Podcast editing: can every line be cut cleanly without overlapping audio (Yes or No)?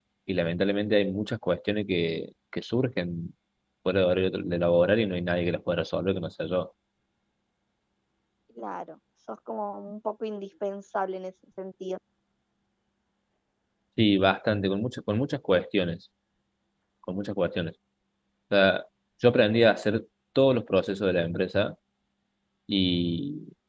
Yes